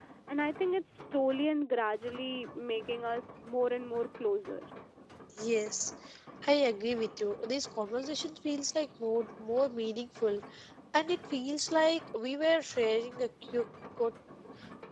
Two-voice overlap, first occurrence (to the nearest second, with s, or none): none